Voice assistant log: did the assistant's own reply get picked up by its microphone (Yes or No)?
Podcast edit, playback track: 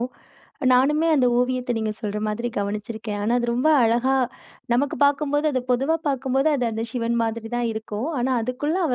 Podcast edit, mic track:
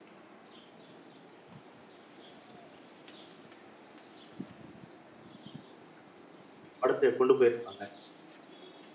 No